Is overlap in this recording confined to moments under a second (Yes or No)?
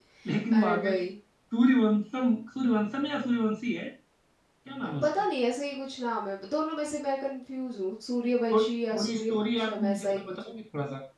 No